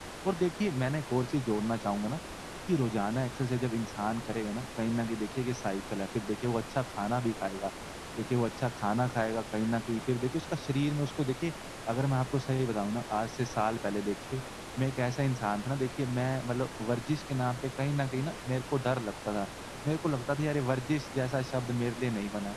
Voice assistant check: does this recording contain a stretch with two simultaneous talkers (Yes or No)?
No